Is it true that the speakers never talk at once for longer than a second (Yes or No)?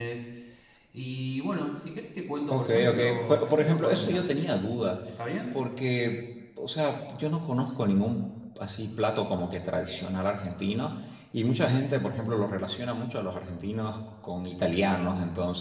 No